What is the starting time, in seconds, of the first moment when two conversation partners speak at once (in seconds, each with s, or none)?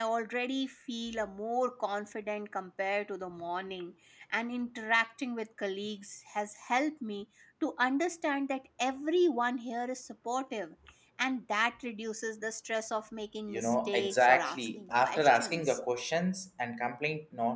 13.5 s